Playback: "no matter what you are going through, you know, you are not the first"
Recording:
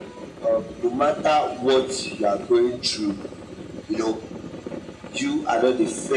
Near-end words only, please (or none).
none